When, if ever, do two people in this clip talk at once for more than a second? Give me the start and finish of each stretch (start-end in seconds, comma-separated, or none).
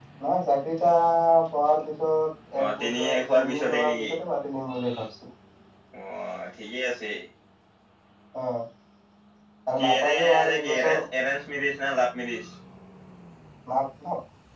2.6-4.1, 9.8-11.0